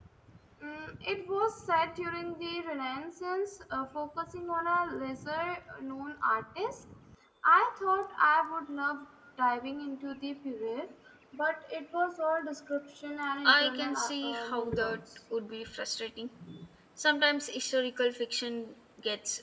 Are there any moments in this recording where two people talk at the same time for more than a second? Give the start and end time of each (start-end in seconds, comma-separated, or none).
13.5-15.0